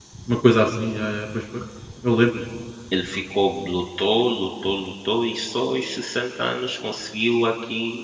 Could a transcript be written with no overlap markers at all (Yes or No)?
Yes